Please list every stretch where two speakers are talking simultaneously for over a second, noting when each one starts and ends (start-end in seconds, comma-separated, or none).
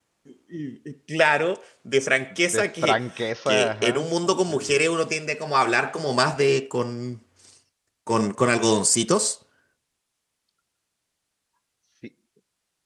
3.5-4.8